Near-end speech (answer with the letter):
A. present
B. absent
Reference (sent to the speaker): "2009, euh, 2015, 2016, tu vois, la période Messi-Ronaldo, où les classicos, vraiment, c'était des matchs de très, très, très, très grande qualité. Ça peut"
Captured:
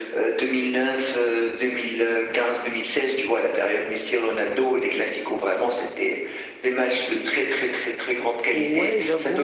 A